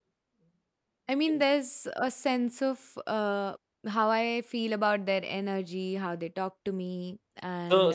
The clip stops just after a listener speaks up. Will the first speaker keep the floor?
No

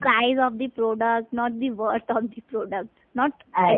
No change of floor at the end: Yes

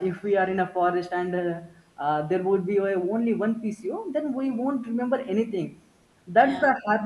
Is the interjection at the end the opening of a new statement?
No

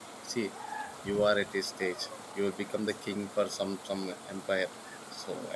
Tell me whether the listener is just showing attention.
Yes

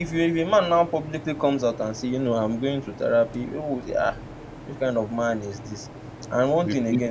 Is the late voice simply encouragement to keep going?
Yes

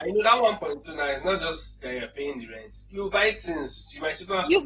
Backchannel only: No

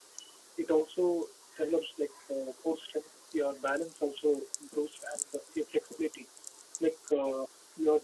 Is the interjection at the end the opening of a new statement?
No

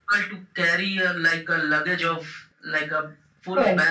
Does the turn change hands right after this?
No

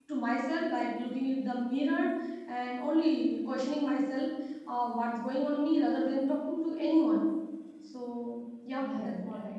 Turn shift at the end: Yes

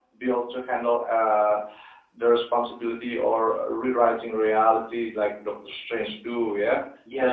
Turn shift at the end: Yes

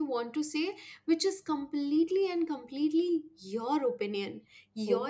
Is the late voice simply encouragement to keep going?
Yes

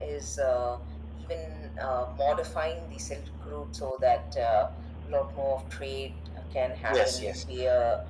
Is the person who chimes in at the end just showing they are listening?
Yes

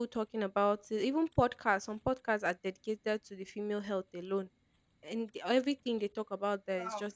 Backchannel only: Yes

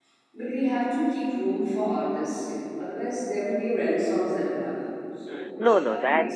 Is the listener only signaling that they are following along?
No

